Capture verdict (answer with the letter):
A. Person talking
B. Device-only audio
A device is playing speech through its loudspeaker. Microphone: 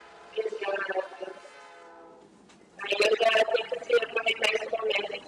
B